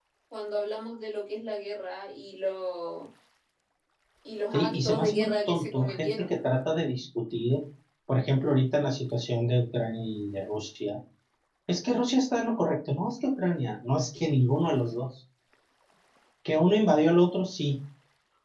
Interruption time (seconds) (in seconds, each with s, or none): 4.5 s